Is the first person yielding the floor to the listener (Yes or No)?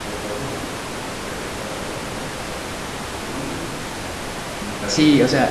Yes